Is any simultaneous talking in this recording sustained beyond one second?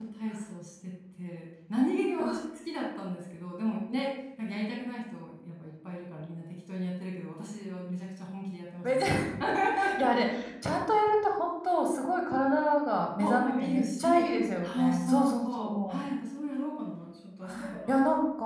Yes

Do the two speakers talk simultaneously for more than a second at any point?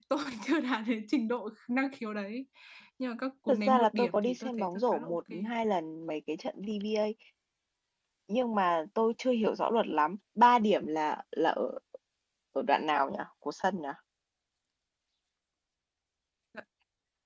Yes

